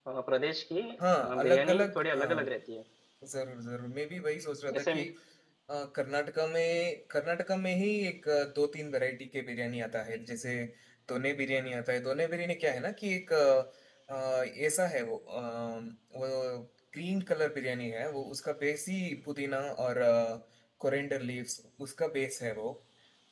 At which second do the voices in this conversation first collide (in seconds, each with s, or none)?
1.2 s